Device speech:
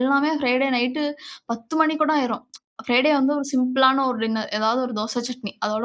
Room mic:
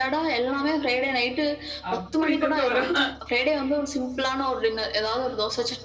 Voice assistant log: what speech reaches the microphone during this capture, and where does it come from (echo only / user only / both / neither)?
both